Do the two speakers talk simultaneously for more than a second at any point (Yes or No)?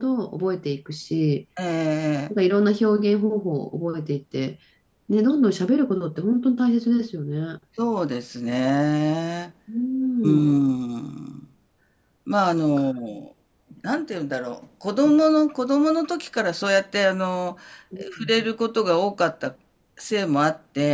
No